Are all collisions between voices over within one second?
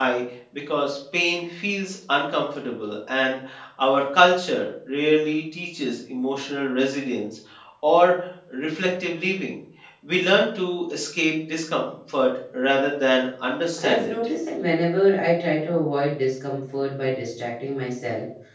Yes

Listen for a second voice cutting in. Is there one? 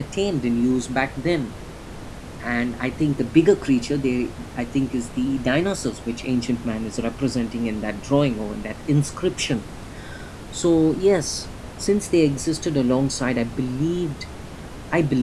No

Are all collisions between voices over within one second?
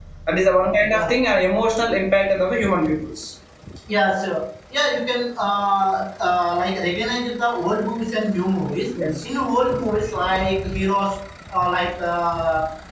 Yes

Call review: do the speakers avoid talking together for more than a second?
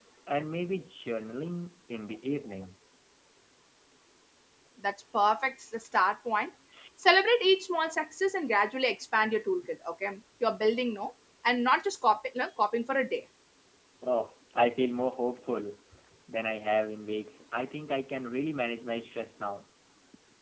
Yes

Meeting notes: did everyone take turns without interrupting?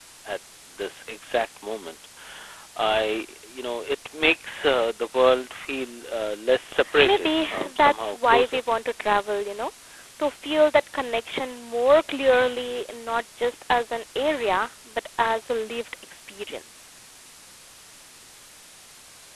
No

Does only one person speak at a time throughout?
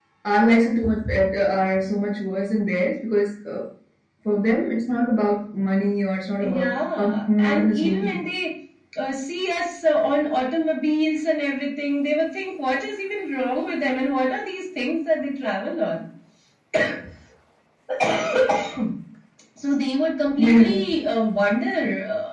No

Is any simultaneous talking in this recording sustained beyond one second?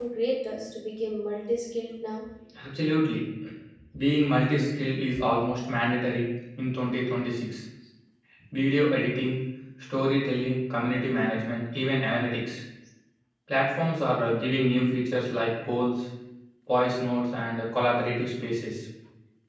No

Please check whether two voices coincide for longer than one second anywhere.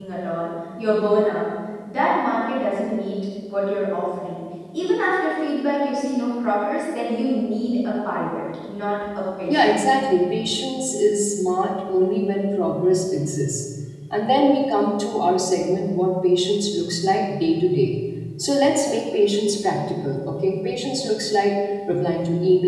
No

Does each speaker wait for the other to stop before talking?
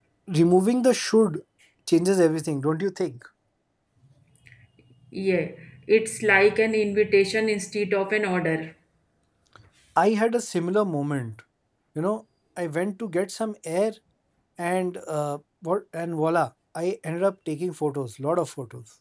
Yes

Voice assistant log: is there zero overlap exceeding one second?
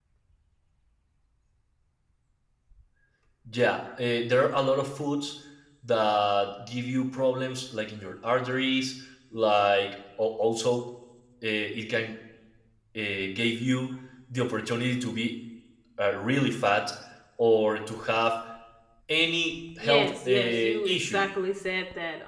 No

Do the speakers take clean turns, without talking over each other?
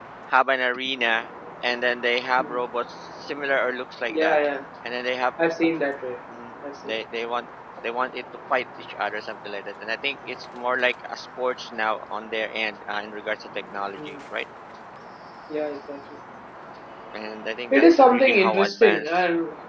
No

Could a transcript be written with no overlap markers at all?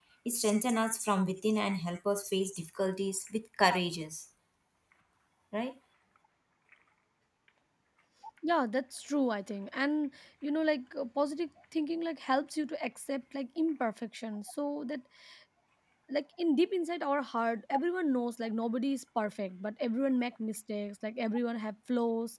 Yes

